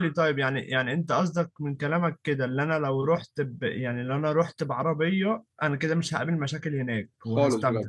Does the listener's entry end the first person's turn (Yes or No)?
Yes